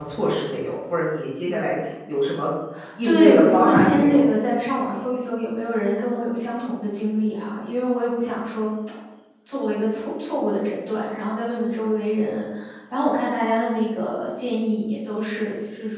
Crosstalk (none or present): present